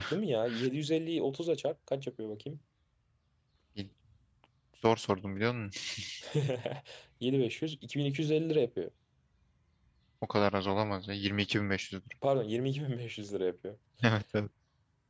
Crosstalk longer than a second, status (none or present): none